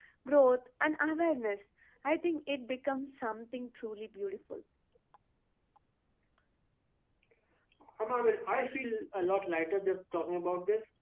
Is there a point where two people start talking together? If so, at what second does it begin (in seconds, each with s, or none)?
none